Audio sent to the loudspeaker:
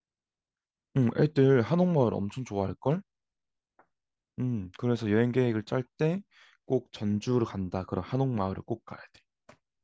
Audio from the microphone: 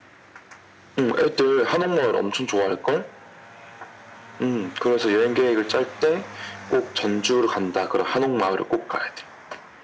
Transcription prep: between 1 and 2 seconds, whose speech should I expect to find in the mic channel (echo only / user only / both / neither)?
echo only